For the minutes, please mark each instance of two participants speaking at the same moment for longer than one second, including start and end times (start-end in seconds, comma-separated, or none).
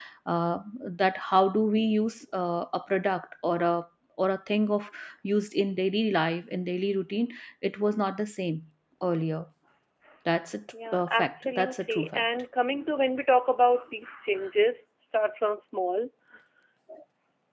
10.9-12.2